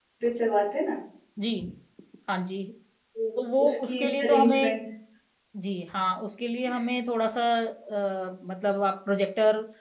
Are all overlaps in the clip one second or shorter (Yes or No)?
No